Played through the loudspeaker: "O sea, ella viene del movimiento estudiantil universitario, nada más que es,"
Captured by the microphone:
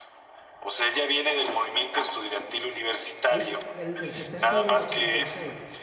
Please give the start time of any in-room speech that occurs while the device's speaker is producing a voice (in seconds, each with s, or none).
3.2 s